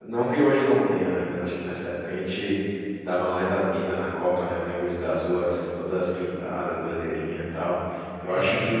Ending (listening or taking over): listening